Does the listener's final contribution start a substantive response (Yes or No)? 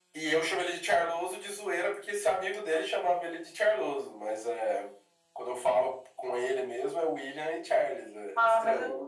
Yes